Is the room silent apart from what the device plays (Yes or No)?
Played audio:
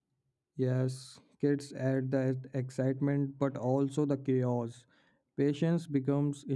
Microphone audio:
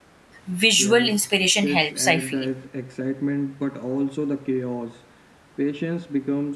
No